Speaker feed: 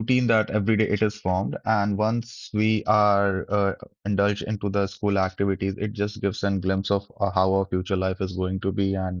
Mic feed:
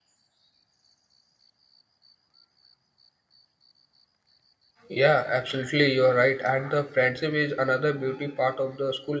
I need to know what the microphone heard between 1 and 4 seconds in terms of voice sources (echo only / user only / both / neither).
neither